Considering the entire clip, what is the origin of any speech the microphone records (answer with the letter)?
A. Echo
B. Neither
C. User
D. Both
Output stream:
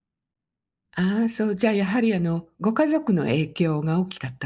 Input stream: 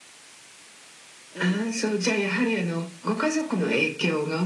D